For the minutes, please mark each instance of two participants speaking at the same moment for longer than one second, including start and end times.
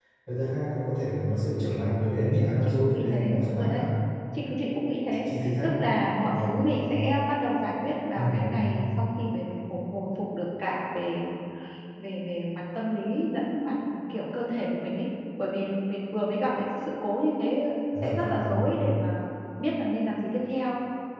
2.4-3.8

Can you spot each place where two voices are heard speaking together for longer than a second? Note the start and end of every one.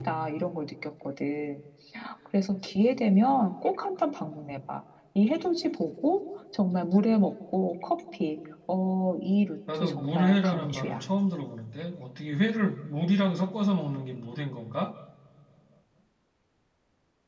9.7-11.0

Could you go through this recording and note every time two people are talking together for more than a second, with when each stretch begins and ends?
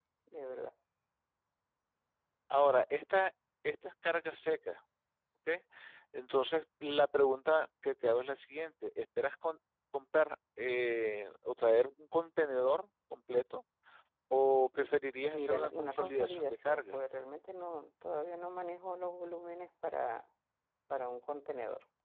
15.3-17.0

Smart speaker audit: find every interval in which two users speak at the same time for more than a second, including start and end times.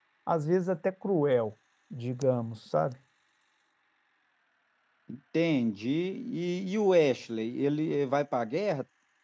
none

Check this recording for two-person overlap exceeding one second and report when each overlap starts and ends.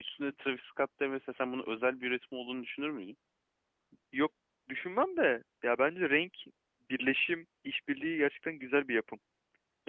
none

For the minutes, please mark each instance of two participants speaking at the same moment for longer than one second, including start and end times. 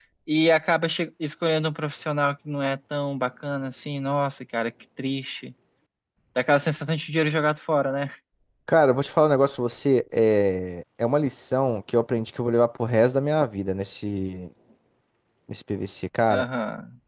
none

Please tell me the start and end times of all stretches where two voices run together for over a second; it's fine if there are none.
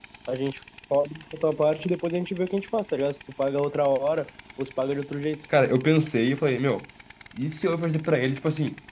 none

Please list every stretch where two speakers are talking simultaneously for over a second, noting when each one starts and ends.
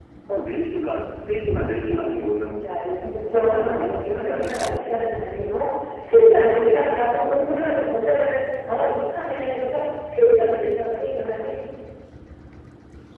3.3-4.7

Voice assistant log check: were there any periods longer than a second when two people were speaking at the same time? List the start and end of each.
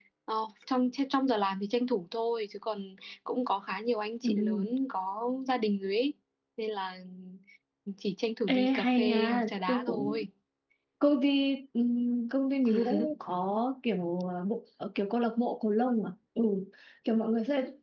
8.5-10.2

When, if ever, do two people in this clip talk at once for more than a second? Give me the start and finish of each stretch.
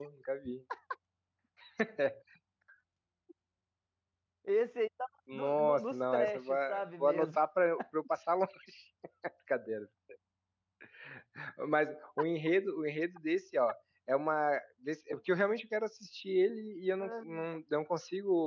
5.3-6.5

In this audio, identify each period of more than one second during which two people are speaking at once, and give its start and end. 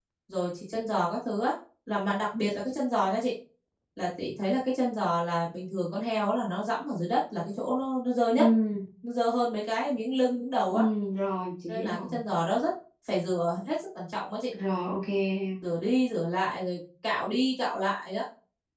none

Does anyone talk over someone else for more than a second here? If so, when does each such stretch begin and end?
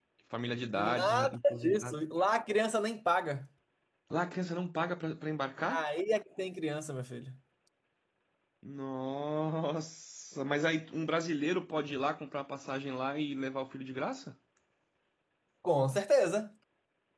0.8-2.0

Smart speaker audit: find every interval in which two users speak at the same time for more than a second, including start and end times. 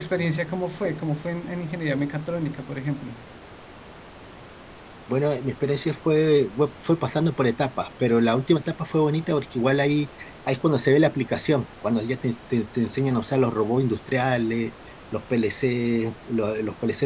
none

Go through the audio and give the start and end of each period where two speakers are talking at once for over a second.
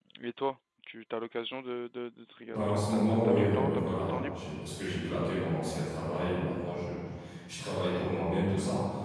2.5-4.4

